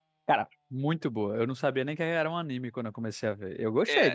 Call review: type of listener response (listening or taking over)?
taking over